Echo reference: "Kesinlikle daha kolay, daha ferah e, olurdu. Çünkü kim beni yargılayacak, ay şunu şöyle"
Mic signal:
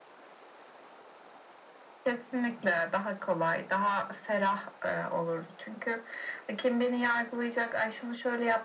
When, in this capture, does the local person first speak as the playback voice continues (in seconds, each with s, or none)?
none